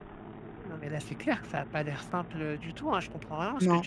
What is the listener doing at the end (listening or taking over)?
listening